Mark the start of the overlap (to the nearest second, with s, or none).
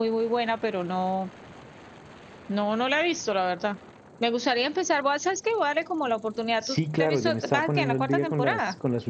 7 s